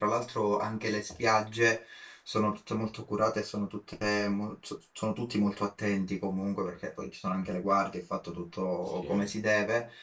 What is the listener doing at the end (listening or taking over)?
listening